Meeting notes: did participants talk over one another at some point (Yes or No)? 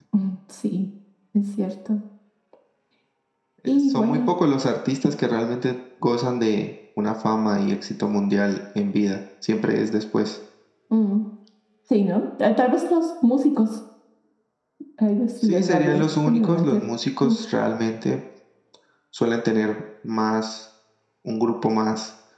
Yes